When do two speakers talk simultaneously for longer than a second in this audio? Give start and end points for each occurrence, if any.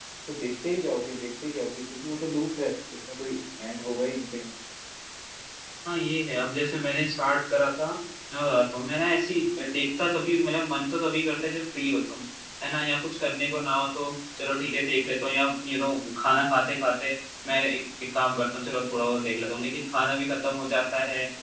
none

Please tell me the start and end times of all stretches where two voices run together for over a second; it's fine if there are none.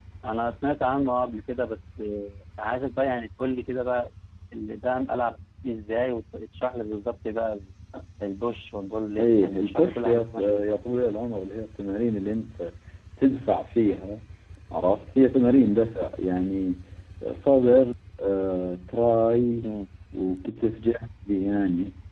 9.2-10.6

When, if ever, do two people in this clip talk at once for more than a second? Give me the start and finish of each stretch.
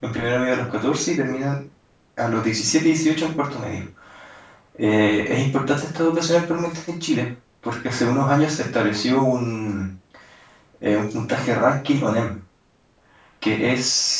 none

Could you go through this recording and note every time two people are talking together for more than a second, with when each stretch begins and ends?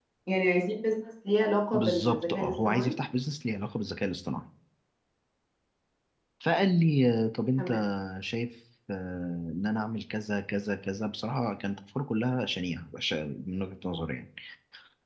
1.7-3.0

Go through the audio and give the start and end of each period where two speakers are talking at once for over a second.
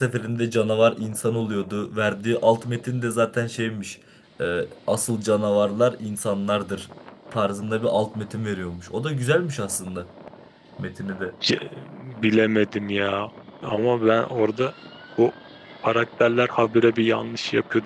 none

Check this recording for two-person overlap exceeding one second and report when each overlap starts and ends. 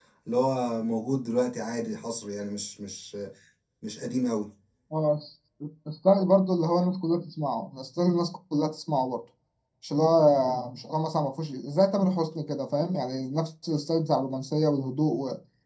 none

